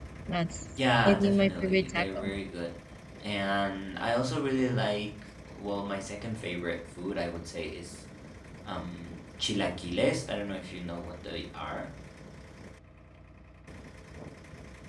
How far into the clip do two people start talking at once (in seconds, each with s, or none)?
1.0 s